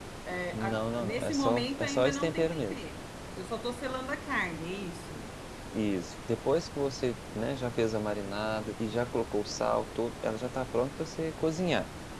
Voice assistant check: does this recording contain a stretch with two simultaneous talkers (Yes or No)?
Yes